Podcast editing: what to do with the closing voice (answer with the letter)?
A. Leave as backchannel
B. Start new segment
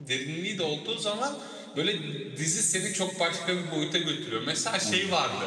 A